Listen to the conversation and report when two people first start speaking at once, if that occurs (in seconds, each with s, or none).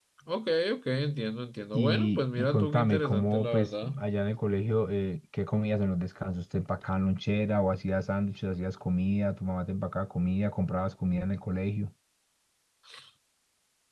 1.7 s